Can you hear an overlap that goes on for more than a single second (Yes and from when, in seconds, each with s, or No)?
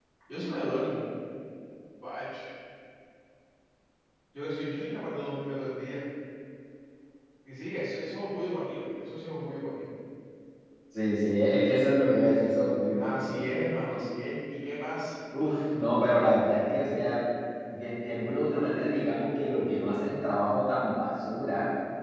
No